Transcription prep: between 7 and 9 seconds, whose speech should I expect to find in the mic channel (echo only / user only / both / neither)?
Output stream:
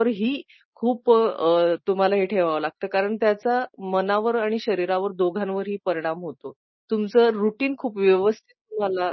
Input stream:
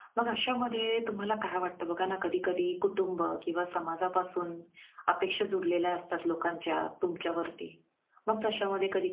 user only